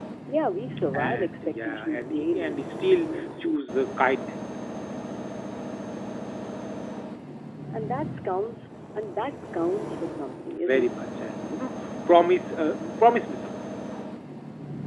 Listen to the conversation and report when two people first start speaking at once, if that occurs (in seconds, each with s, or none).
0.9 s